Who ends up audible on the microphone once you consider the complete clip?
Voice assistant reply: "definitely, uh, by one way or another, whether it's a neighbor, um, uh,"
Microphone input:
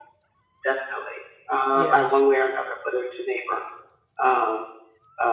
both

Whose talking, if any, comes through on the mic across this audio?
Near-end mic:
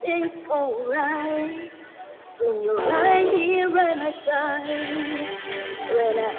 both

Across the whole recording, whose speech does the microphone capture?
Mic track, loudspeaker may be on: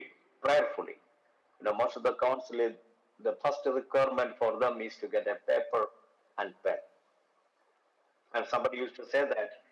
echo only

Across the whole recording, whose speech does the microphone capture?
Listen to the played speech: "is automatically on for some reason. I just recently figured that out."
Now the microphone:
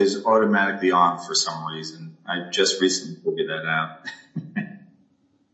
echo only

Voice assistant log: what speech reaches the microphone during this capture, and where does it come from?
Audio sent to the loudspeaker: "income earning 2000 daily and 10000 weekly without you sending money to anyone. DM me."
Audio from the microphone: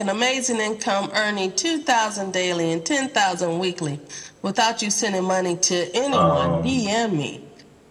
both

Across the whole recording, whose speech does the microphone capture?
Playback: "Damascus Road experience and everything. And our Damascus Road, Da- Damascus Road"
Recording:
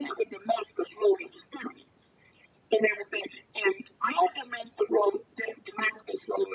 echo only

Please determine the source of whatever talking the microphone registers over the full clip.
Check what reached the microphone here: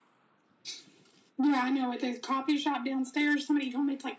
echo only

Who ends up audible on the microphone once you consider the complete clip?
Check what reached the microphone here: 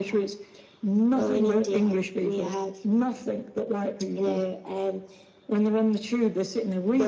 echo only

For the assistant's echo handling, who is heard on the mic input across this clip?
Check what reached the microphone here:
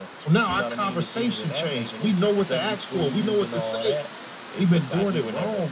echo only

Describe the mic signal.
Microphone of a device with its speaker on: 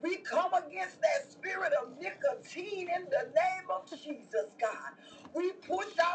echo only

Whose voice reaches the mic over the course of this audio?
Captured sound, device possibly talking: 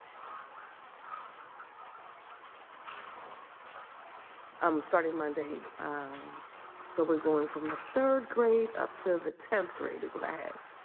user only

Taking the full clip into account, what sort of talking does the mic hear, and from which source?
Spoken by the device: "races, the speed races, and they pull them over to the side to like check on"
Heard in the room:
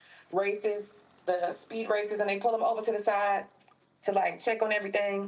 echo only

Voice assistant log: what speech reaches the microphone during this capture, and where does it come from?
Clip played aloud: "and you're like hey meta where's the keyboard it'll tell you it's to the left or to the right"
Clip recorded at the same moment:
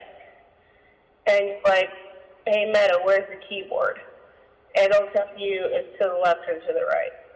echo only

